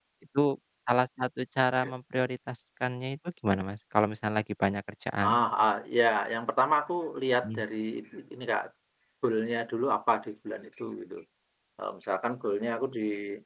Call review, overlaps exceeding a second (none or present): none